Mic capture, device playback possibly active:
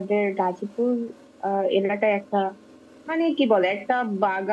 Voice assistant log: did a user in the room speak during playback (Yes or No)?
No